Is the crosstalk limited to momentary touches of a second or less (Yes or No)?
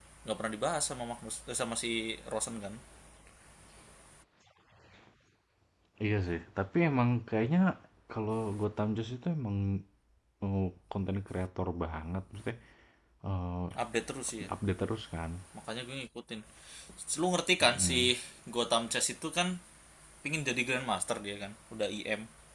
Yes